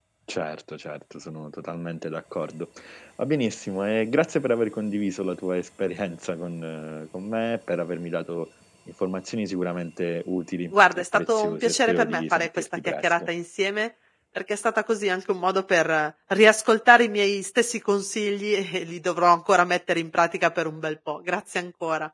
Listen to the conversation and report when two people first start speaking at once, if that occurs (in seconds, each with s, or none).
10.7 s